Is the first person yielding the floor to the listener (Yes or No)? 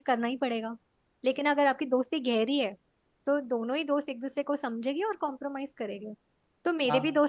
No